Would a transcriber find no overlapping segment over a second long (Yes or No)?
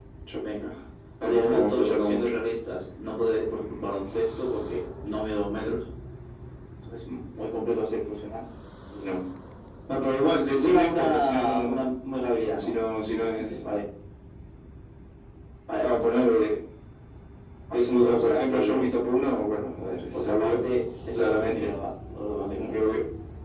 No